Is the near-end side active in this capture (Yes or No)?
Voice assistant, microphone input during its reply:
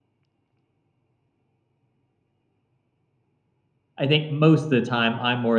Yes